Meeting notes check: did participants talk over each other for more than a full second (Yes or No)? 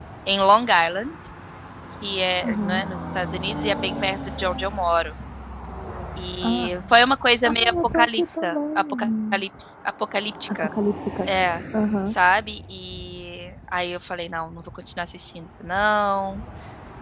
Yes